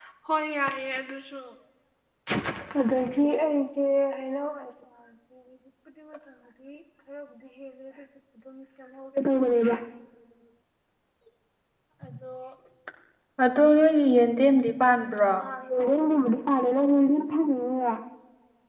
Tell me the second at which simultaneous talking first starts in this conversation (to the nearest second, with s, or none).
none